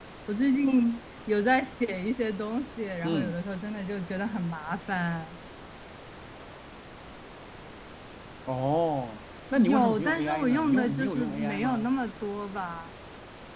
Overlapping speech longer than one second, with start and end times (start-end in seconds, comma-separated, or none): 9.6-11.9